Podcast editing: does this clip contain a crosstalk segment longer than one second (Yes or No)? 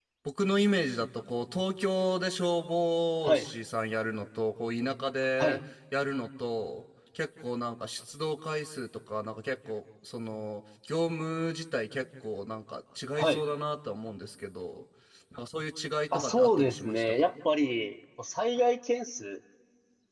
Yes